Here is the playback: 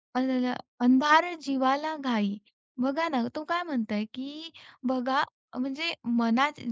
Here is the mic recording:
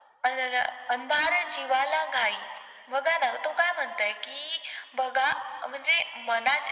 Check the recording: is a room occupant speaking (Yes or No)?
No